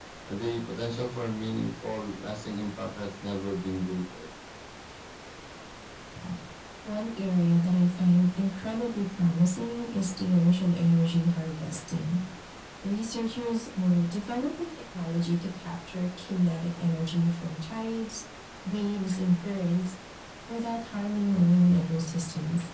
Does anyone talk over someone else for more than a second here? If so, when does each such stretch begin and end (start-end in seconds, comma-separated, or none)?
none